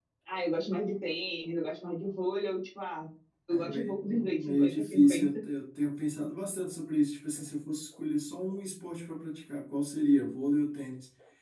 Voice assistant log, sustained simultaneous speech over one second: present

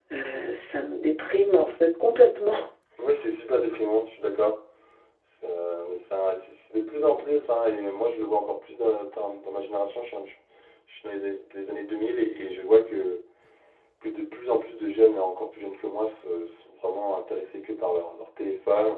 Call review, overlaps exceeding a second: none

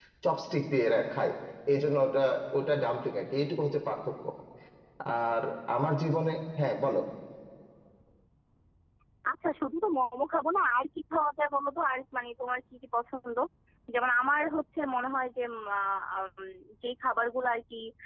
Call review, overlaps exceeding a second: none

